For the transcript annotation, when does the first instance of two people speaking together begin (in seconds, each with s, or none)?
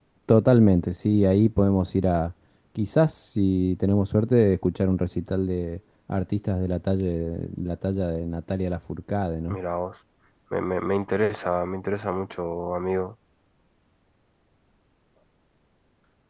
none